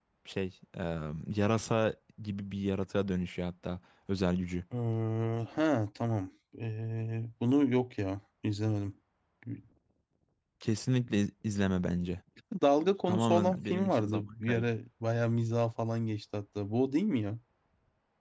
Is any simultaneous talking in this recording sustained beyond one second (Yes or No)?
Yes